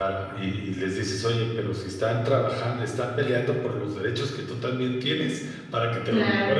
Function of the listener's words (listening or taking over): listening